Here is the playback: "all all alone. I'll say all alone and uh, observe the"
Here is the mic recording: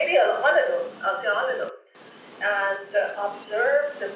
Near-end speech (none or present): none